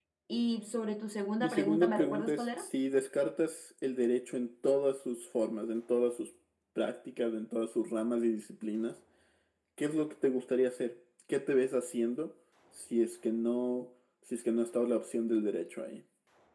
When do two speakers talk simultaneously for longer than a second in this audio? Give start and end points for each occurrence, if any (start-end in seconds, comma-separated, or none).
1.4-2.7